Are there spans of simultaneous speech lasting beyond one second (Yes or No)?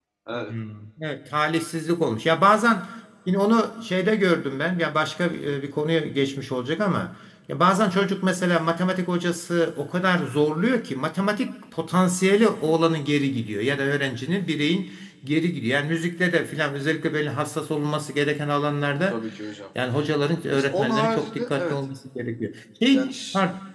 Yes